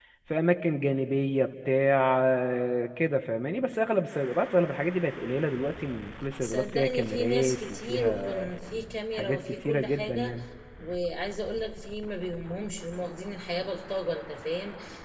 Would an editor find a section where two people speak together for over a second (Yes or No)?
Yes